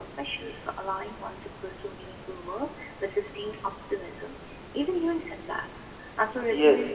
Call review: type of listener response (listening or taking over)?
taking over